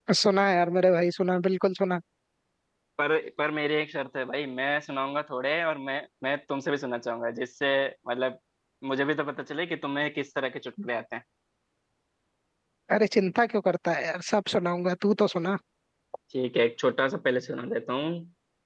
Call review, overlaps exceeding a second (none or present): none